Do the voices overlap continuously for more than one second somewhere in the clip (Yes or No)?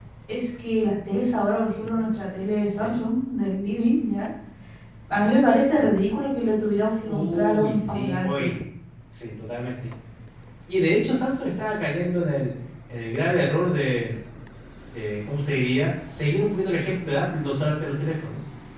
Yes